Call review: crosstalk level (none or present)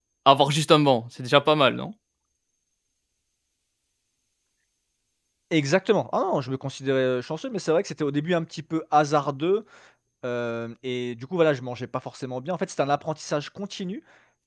none